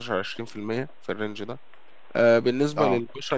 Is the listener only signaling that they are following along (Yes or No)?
Yes